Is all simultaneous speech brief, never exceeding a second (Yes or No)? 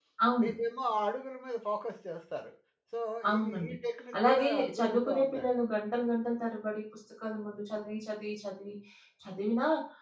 No